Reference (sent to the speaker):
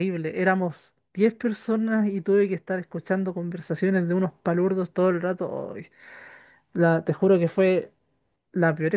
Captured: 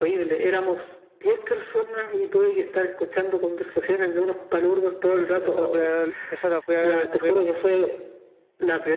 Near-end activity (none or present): present